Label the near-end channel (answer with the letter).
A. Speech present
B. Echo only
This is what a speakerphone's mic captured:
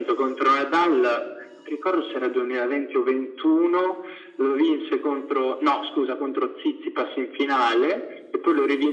B